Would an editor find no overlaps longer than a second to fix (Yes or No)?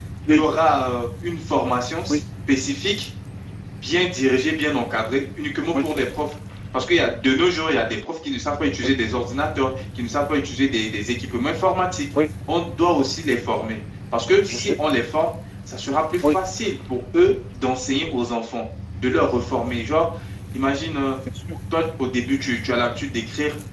Yes